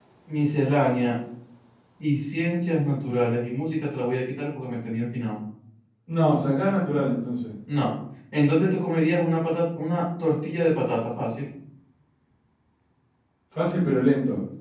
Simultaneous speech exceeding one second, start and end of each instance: none

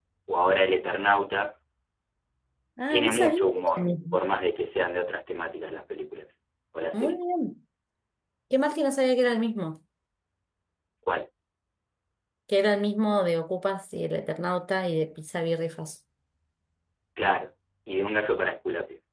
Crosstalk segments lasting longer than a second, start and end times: 2.9-4.2

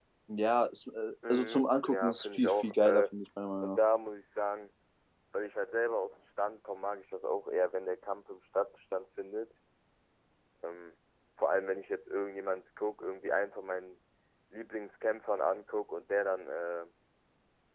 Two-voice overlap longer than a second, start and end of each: 1.3-3.0

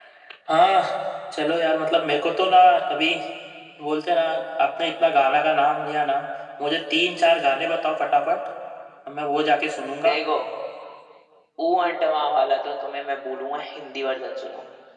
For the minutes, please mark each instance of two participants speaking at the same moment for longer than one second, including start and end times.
none

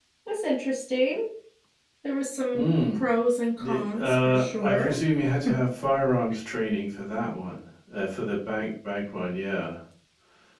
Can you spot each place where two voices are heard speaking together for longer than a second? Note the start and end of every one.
3.6-5.0

